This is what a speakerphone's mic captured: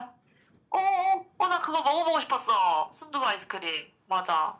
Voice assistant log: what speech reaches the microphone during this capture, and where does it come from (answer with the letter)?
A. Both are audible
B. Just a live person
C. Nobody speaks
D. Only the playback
D